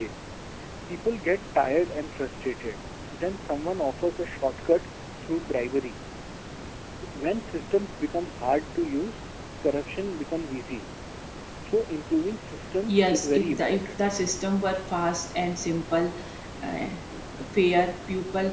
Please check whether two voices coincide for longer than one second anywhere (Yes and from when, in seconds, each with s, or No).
Yes, from 12.9 s